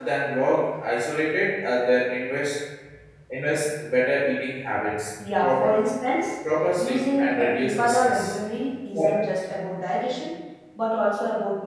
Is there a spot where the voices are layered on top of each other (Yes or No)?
Yes